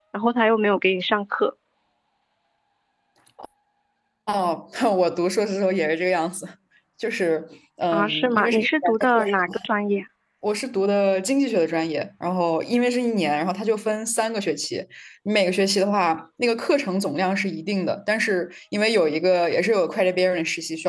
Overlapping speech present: Yes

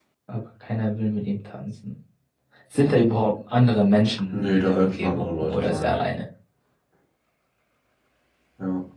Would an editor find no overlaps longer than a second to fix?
No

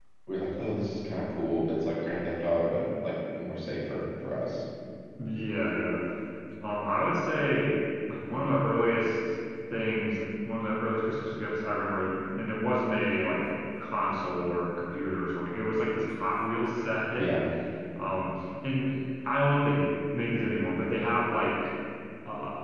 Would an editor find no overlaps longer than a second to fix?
Yes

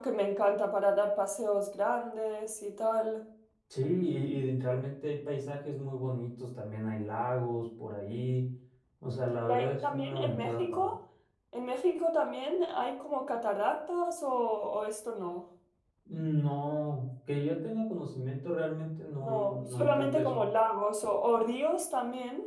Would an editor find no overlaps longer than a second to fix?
No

